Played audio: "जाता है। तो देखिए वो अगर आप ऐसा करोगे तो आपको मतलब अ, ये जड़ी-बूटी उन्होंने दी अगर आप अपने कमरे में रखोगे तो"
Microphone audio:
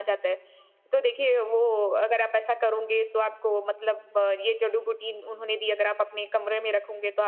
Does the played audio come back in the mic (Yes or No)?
Yes